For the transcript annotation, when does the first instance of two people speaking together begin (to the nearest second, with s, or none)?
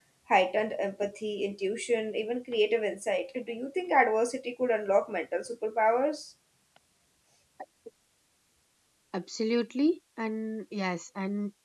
none